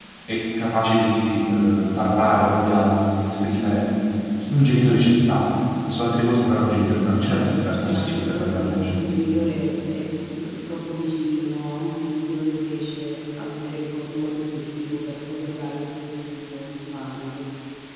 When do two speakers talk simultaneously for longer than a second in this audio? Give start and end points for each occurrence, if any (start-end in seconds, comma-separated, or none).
7.3-8.9